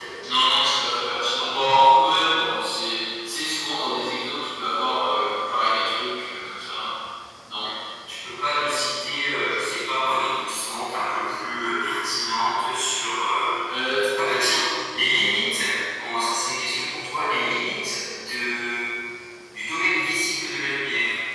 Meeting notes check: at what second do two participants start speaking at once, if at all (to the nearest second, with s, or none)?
none